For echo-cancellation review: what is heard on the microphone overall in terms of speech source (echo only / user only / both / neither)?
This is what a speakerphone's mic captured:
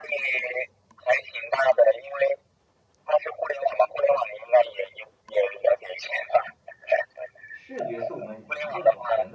both